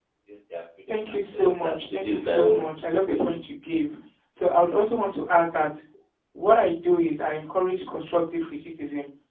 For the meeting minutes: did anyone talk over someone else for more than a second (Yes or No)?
Yes